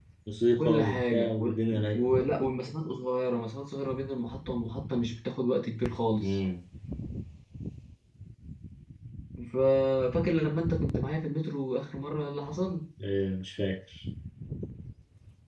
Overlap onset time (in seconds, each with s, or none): 0.6 s